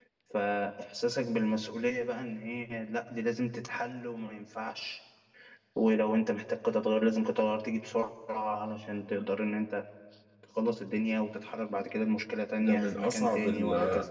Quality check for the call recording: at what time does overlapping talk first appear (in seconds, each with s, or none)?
12.6 s